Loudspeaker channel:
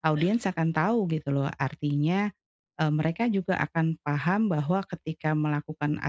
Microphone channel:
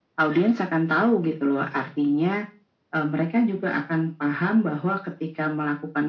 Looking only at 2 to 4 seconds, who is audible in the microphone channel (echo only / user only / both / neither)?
echo only